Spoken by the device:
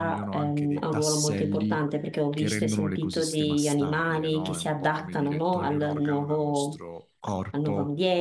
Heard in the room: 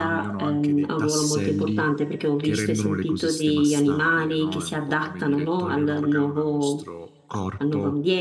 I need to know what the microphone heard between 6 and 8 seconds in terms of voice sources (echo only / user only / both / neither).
echo only